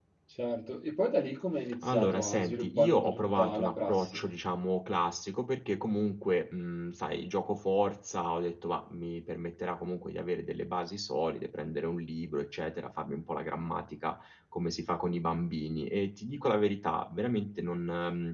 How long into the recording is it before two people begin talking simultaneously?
1.8 s

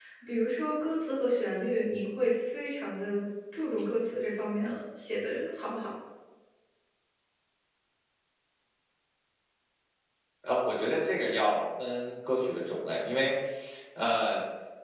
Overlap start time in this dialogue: none

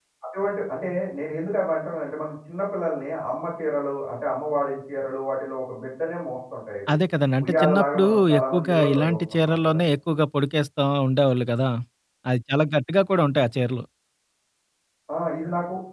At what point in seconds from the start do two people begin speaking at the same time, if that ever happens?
7.4 s

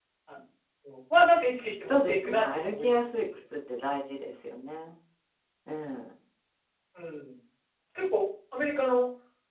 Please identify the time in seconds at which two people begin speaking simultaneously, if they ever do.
1.9 s

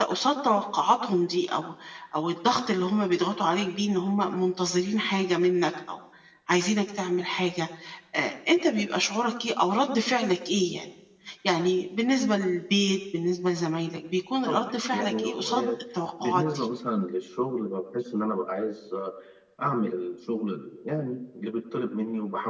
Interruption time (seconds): 14.5 s

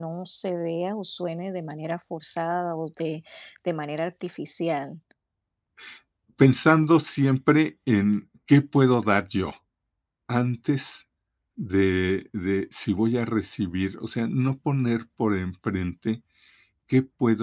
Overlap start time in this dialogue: none

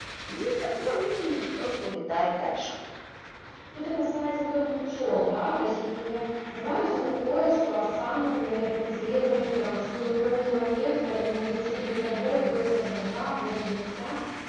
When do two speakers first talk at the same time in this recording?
none

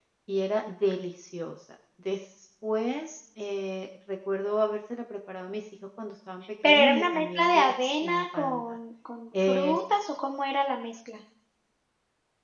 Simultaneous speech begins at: 6.6 s

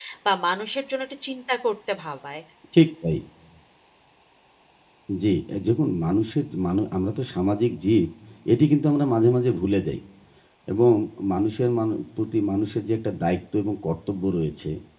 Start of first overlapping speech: none

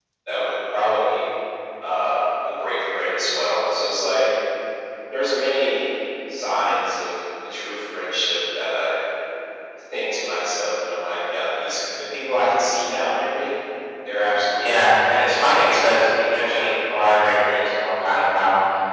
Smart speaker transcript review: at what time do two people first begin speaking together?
14.6 s

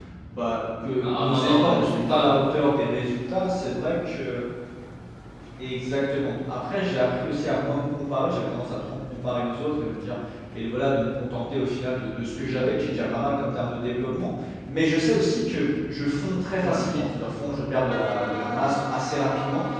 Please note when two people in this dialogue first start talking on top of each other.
1.0 s

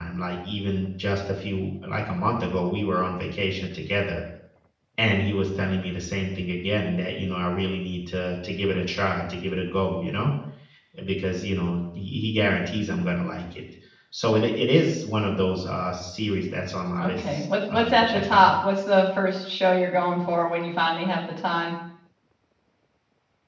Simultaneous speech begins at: 16.9 s

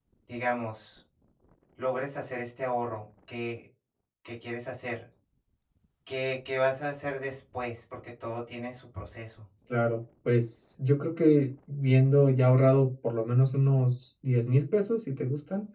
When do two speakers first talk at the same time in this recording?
none

